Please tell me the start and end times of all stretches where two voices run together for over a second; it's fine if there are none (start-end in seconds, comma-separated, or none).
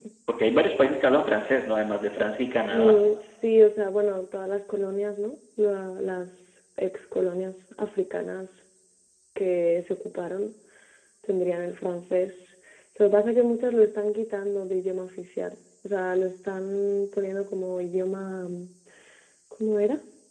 none